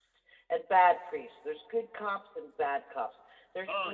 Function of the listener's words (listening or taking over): listening